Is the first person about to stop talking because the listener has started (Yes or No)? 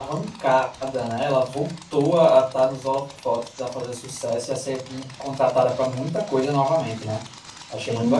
Yes